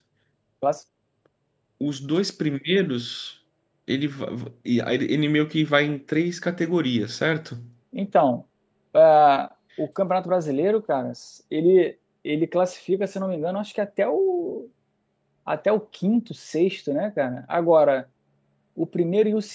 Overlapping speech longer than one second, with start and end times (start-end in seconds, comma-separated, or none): none